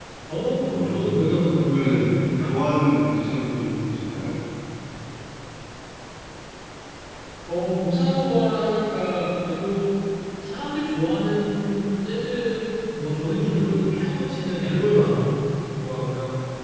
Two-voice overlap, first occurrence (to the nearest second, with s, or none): 1 s